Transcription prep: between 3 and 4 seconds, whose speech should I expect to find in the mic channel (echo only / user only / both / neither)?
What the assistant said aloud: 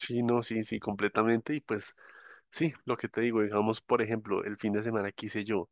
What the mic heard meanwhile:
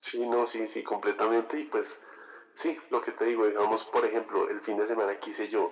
echo only